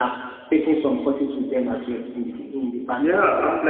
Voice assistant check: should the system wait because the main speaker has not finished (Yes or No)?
No